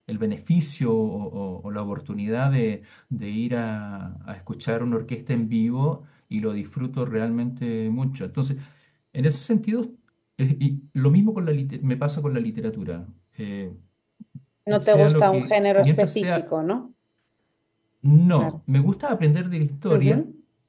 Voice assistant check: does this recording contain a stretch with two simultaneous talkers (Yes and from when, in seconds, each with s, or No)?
Yes, from 14.8 s